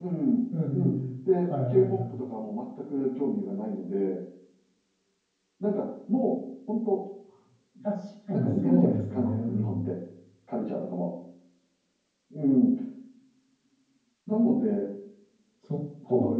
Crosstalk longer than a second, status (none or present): present